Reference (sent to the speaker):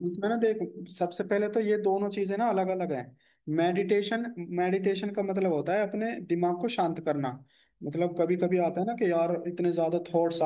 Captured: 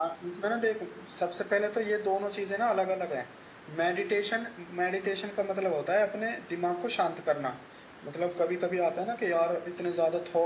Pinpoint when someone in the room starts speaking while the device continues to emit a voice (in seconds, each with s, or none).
none